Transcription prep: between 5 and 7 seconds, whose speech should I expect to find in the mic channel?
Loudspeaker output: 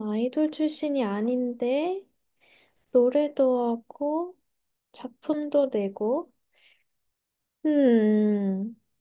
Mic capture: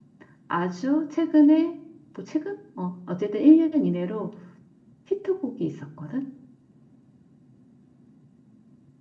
user only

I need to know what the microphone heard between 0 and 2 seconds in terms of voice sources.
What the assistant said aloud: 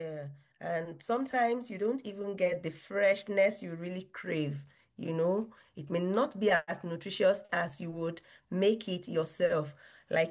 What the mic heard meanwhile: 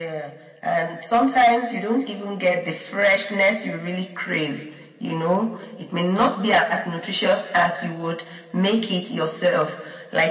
echo only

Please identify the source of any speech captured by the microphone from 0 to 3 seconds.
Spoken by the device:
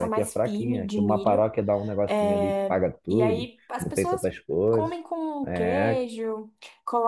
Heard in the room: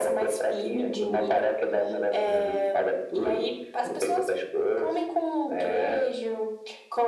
echo only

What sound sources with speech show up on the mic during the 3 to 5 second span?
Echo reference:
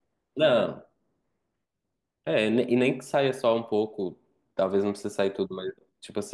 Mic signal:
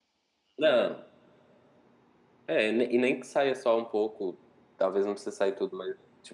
echo only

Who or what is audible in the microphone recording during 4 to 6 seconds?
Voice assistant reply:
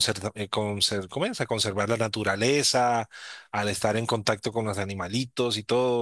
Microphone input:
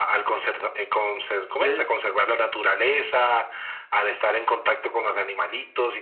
echo only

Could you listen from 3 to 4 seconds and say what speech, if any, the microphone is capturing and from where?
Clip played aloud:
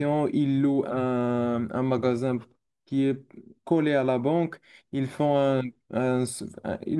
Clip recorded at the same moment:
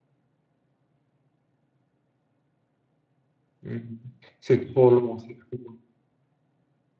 user only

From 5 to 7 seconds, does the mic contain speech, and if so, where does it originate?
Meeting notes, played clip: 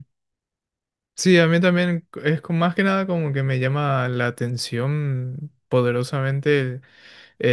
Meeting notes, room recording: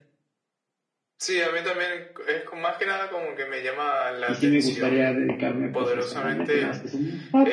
both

